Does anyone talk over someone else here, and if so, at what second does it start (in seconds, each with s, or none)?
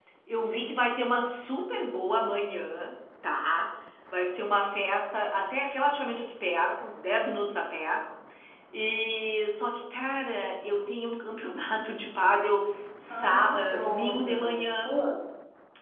13.1 s